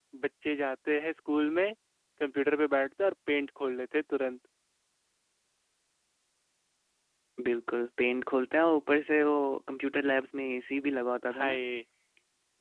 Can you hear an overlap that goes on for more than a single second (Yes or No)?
No